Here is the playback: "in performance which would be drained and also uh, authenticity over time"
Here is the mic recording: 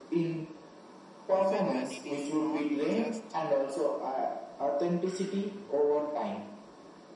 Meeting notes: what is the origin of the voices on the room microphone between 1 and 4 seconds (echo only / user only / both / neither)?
both